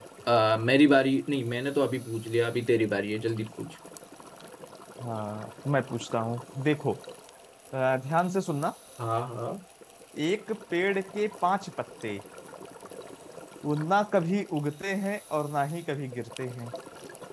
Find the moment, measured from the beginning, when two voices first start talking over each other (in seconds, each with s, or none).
none